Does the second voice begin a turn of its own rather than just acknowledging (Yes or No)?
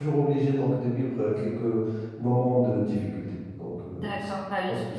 Yes